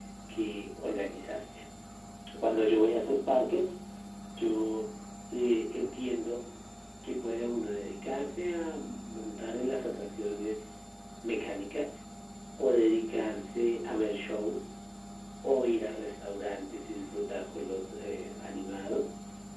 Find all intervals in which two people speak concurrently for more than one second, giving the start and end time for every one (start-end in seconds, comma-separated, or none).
none